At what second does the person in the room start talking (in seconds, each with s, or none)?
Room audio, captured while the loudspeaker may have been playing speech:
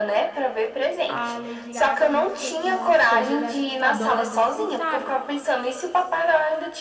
1.1 s